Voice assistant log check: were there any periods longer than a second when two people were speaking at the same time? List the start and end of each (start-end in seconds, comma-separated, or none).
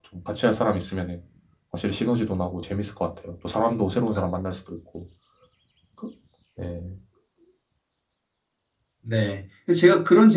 none